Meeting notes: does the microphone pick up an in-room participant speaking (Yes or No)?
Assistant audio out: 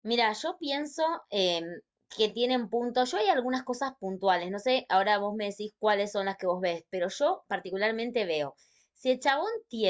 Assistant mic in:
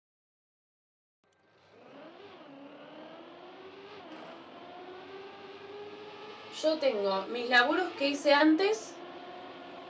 Yes